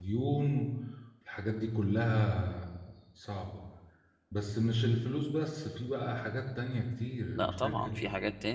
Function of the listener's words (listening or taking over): taking over